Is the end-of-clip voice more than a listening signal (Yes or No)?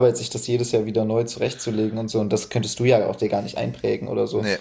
No